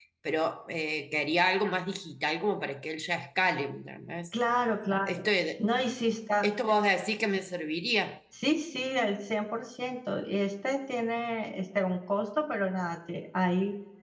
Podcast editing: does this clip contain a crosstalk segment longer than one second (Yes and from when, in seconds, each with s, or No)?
No